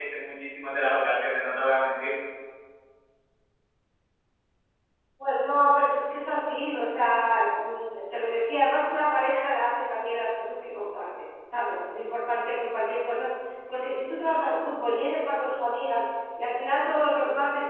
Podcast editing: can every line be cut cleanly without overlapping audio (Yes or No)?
Yes